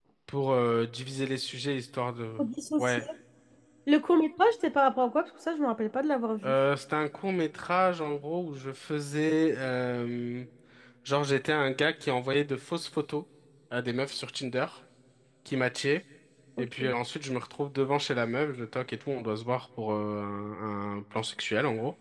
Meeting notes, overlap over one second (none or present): none